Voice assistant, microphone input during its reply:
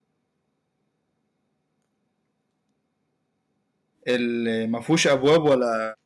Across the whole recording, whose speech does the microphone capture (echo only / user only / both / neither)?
user only